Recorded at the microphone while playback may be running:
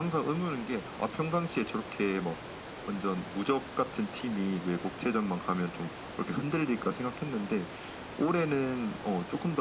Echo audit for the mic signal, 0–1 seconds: echo only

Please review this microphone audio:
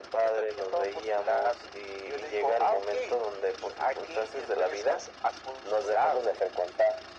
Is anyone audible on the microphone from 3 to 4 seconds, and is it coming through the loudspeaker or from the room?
echo only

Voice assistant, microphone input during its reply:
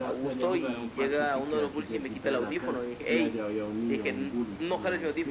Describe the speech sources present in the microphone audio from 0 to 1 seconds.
both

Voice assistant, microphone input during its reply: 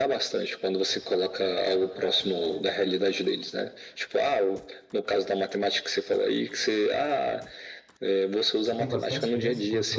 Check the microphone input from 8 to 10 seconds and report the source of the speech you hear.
both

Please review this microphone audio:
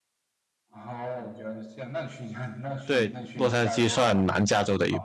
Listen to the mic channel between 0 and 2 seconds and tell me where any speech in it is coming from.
echo only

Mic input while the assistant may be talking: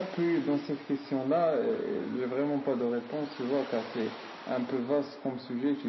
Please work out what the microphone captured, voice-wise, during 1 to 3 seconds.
echo only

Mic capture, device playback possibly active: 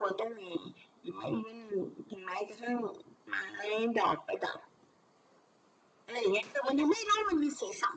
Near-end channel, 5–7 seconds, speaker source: echo only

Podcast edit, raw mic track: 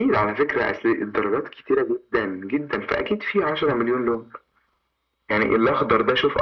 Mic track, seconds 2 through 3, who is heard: echo only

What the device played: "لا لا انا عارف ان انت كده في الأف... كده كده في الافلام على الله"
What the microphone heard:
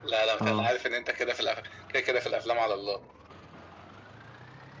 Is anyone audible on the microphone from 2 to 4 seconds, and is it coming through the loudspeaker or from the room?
echo only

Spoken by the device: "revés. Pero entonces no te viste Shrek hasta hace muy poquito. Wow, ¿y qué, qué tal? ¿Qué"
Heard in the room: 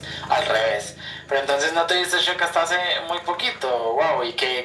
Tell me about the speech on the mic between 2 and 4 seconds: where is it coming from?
echo only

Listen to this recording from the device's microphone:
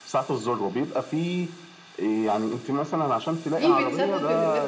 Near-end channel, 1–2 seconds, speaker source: echo only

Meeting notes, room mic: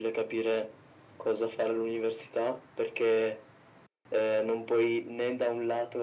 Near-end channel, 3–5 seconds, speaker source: echo only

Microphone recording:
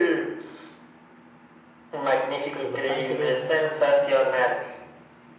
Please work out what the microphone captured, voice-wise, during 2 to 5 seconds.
both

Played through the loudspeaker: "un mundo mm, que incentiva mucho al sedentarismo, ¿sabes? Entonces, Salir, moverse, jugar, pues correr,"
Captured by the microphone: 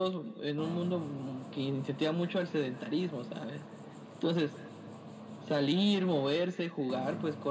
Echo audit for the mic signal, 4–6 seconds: echo only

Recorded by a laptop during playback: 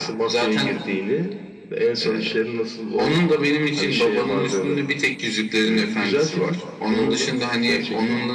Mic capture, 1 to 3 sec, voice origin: echo only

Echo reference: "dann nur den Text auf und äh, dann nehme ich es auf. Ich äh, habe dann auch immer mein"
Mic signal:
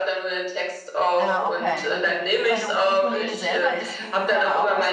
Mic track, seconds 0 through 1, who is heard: echo only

